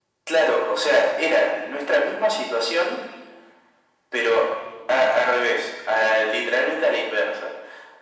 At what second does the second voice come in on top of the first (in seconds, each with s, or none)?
none